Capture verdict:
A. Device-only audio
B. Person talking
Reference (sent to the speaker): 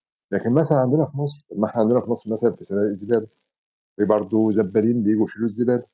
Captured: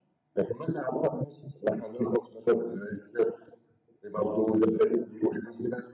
A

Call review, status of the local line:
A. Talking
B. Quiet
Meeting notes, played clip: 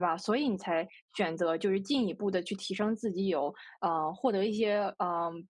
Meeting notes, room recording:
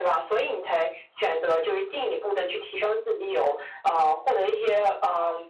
B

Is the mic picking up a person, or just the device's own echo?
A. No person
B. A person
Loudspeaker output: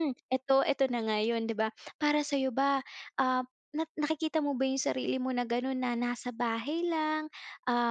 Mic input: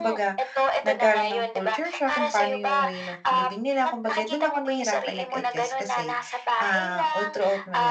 B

